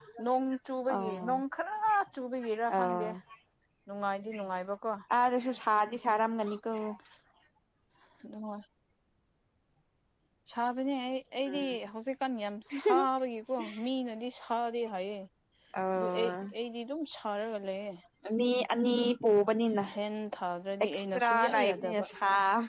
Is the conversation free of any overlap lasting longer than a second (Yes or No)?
No